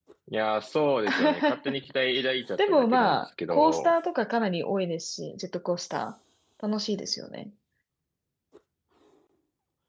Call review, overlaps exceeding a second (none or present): present